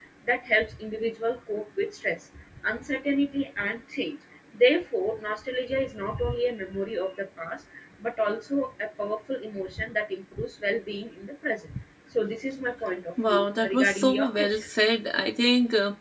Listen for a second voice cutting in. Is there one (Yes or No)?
Yes